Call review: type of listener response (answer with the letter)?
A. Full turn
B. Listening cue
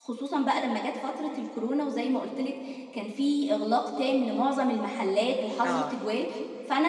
B